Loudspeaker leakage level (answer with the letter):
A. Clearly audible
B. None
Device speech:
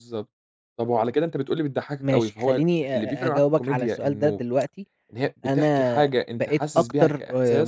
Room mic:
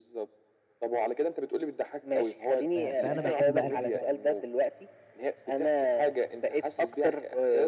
A